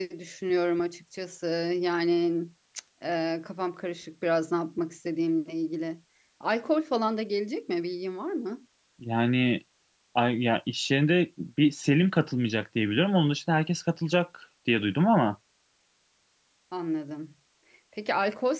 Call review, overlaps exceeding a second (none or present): none